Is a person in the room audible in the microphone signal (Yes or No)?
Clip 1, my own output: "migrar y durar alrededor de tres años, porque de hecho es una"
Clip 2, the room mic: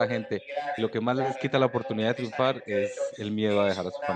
Yes